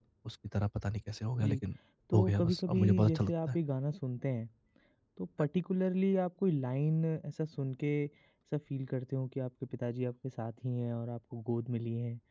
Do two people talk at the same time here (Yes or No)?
Yes